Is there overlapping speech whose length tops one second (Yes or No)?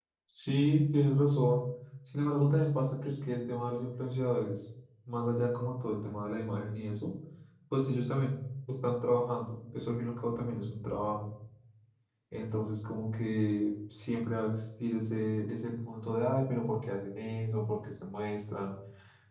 No